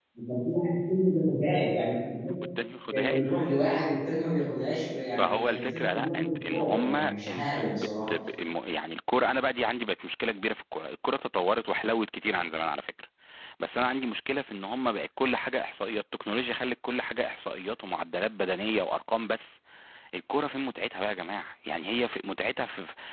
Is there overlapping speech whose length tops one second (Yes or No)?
Yes